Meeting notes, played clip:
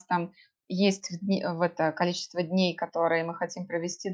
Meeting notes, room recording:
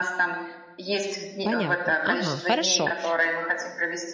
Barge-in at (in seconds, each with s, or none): 1.4 s